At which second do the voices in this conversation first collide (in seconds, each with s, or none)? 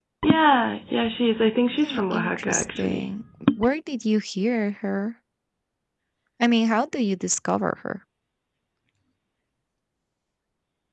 1.8 s